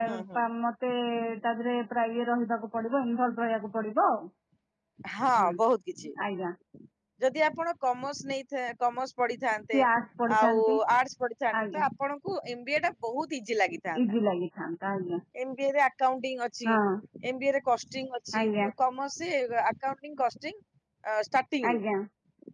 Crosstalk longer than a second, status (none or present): none